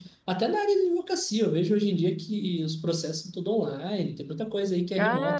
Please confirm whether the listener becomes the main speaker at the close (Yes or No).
Yes